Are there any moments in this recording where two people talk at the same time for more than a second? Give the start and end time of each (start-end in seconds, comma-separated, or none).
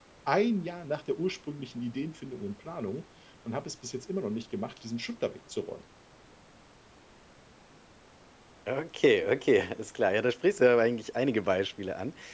none